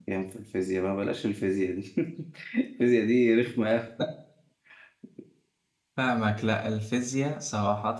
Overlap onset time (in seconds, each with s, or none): none